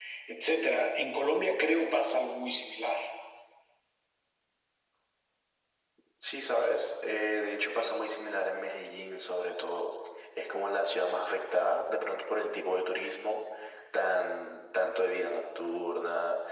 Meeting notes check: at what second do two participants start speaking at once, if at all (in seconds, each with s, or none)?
none